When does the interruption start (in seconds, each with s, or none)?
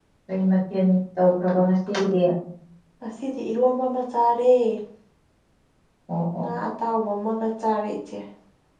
none